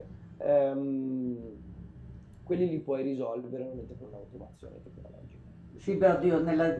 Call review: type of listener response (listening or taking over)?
taking over